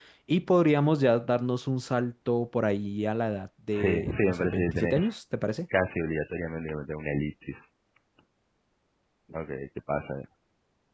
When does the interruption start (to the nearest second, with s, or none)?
4 s